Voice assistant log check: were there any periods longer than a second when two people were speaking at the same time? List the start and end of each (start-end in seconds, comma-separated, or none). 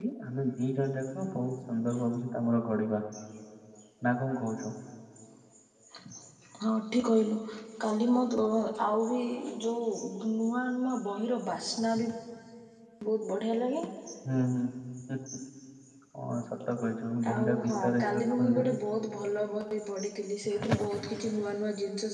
17.3-18.7